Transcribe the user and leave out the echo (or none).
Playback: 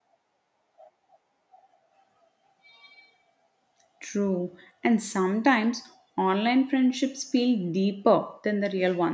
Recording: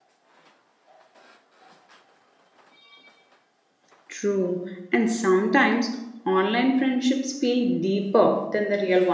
none